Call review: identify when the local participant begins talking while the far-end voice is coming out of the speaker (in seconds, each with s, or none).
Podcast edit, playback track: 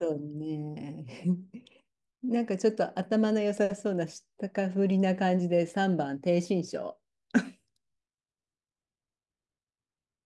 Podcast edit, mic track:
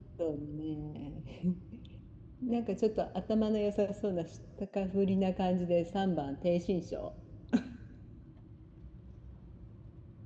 none